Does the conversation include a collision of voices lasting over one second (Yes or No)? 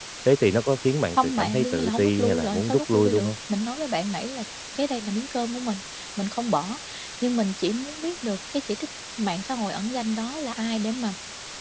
Yes